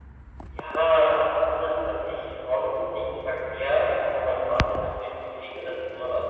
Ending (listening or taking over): listening